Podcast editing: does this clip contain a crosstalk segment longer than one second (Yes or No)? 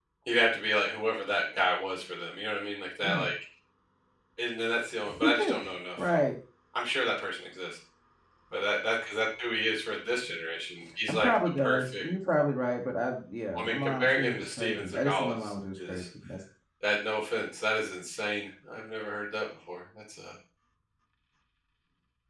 Yes